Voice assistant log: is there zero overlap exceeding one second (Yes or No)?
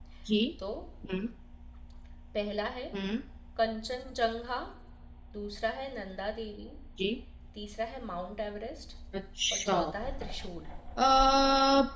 Yes